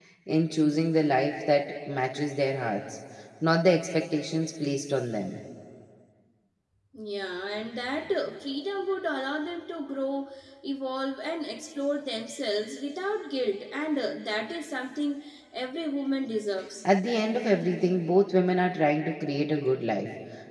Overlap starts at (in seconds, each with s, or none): none